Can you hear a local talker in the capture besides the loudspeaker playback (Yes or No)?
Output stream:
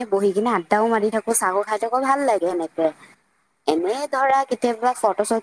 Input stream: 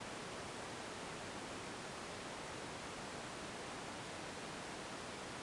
No